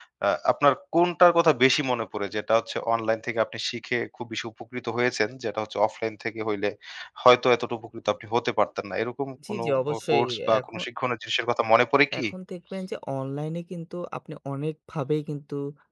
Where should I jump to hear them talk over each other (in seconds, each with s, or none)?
9.4 s